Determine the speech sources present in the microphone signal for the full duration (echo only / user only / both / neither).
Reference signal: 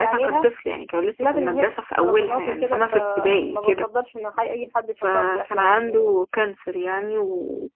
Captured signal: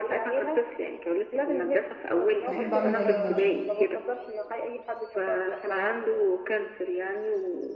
both